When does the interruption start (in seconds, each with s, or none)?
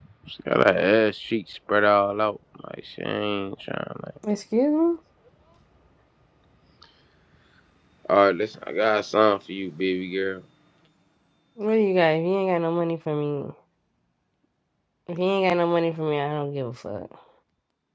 none